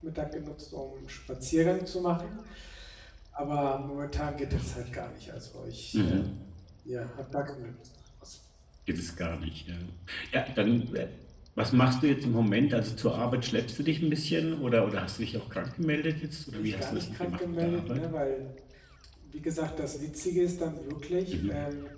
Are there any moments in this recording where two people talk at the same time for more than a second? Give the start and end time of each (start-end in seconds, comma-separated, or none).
16.6-18.0